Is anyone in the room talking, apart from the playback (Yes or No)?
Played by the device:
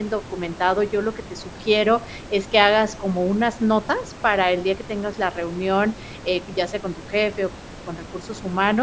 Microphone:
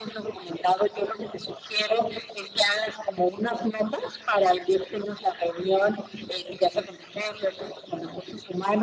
No